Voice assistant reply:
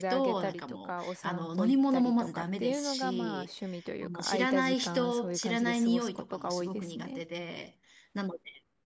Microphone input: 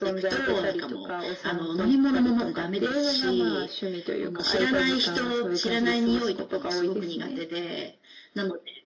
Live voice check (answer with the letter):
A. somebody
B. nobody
B